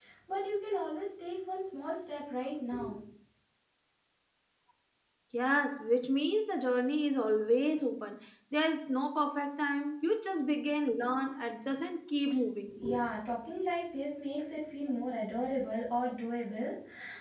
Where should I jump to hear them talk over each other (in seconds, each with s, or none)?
none